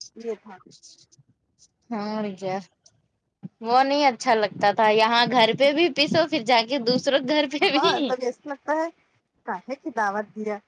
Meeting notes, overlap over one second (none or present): none